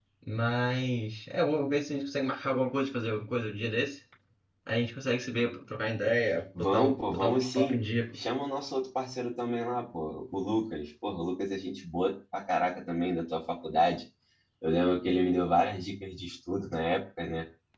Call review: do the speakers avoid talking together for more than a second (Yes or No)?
No